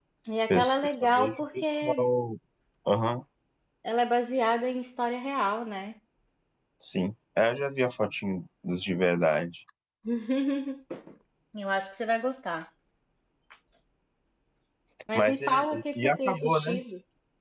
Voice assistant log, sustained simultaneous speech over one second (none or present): present